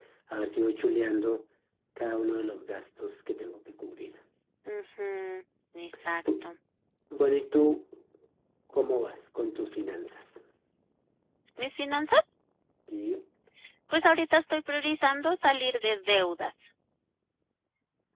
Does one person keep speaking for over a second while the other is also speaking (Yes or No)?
No